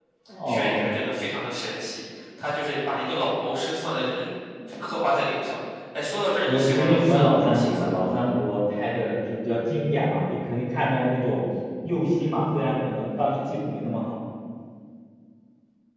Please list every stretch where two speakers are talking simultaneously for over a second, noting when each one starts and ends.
6.5-8.1

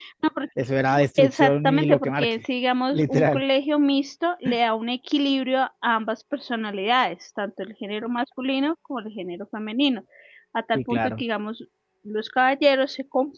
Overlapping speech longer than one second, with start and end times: 1.2-2.4

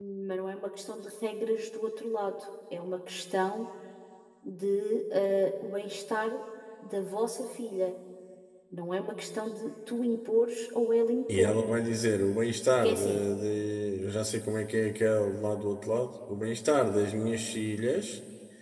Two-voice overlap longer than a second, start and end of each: none

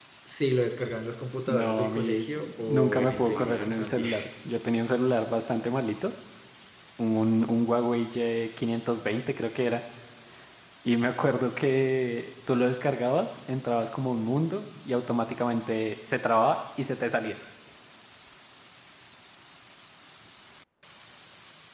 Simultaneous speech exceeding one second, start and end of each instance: 1.5-4.1

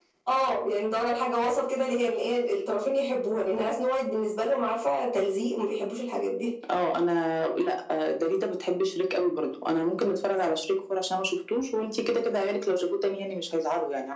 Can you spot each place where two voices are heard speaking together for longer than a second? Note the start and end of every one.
none

